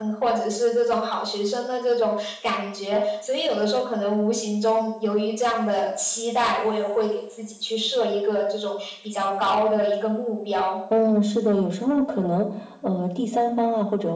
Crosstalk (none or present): none